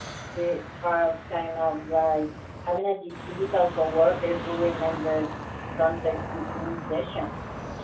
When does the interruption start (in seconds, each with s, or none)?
none